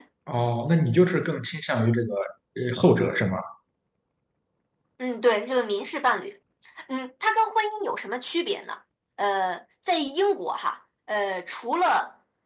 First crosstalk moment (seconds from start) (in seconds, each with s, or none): none